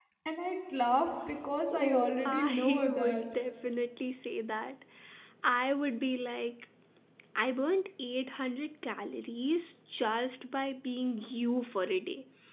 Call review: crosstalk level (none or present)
present